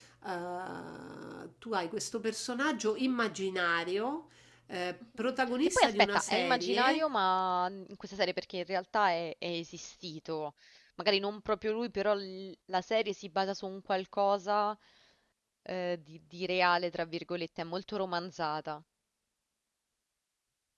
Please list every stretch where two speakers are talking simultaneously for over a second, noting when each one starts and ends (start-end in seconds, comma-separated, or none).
5.8-7.0